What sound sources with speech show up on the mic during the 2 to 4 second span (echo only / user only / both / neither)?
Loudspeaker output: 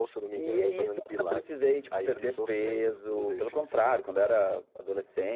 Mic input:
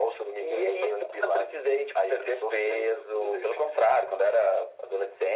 echo only